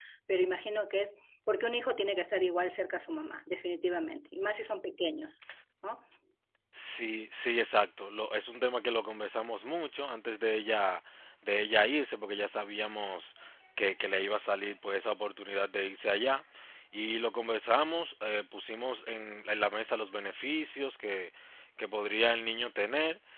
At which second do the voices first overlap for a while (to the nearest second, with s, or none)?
none